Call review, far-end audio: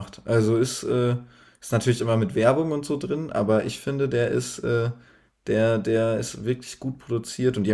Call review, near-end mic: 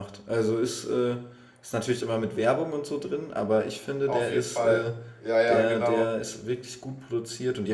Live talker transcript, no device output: auf jeden Fall. Ja, ja, genau.

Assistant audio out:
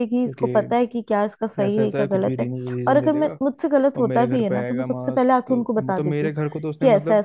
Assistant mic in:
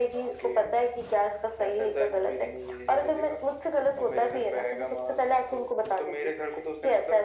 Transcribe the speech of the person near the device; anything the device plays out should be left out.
none

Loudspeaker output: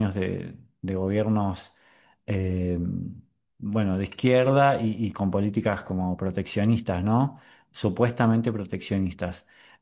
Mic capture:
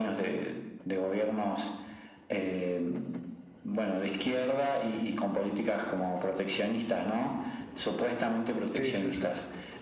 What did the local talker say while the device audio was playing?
sí, sí. sí.

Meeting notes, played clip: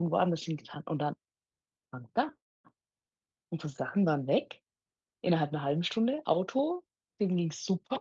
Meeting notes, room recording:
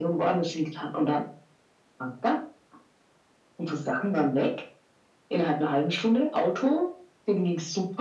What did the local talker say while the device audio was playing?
none

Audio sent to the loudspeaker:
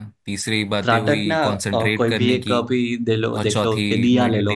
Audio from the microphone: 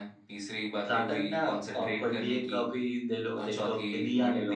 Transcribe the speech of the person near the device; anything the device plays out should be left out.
none

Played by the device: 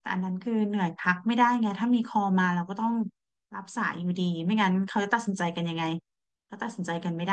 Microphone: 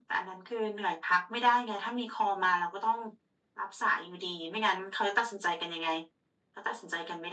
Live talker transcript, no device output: none

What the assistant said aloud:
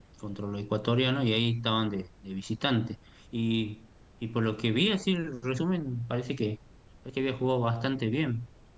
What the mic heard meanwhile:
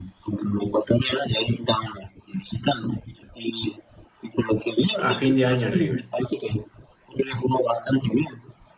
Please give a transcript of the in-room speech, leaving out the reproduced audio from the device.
a fin de año en River,

